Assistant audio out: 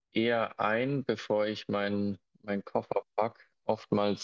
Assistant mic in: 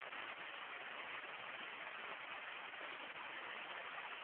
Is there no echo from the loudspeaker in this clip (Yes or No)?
Yes